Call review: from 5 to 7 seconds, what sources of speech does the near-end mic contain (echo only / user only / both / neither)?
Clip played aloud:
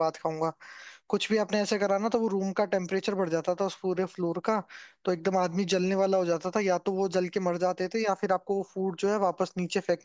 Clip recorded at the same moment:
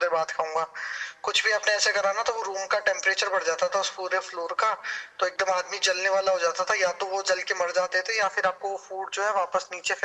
echo only